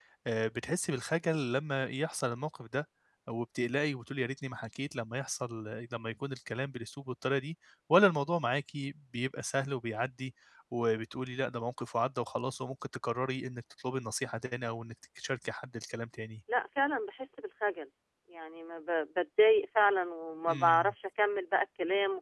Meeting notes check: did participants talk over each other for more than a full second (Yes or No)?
No